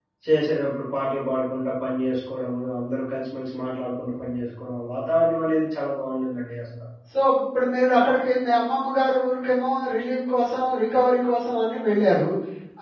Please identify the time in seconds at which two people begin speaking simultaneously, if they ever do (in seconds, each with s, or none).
none